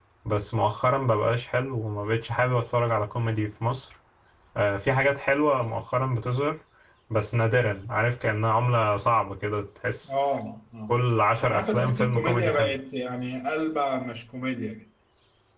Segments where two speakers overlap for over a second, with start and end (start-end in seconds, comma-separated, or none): 11.4-12.7